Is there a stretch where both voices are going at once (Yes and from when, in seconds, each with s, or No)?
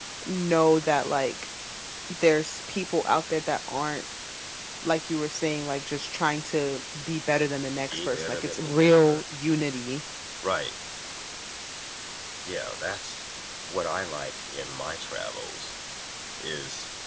Yes, from 7.9 s